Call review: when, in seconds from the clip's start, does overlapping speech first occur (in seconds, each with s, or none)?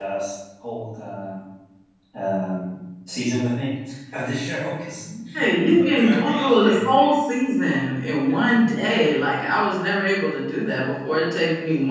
5.6 s